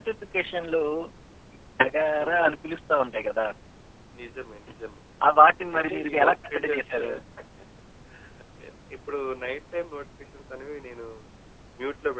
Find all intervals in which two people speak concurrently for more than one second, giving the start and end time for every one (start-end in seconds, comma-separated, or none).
5.7-7.0